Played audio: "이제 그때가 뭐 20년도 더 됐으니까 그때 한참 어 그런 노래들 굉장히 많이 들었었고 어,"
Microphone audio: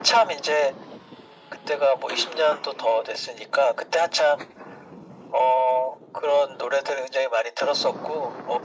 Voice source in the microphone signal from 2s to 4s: echo only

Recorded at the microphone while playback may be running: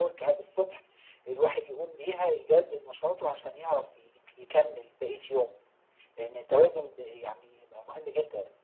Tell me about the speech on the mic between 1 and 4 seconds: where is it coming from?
echo only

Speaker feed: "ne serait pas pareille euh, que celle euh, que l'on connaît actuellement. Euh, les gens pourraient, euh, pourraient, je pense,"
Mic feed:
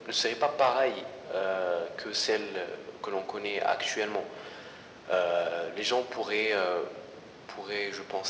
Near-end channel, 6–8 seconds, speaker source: echo only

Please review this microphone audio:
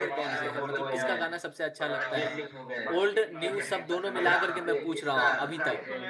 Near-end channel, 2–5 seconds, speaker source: both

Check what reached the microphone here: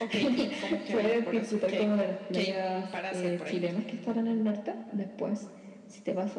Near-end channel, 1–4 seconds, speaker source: echo only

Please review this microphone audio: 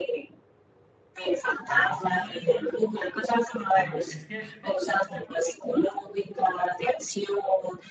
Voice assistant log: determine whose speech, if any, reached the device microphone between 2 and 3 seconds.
both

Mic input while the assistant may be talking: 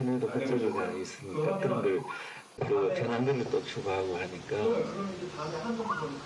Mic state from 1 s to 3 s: both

